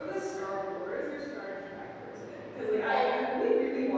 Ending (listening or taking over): listening